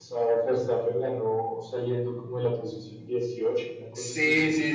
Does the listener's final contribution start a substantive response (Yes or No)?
Yes